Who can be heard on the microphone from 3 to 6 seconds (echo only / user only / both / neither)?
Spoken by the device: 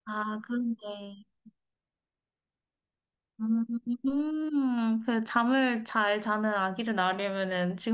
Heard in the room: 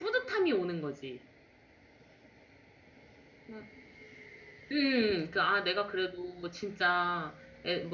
user only